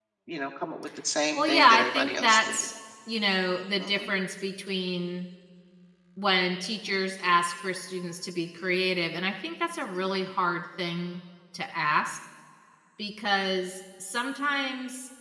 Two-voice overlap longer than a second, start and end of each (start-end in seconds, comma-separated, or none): 1.3-2.7